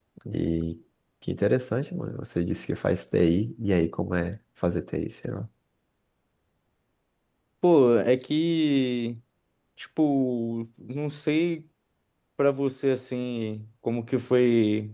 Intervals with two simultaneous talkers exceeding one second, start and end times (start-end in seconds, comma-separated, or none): none